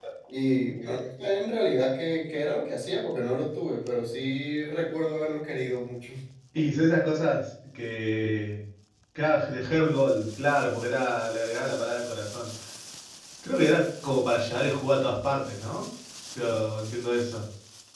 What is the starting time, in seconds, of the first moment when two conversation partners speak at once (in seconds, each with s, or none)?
none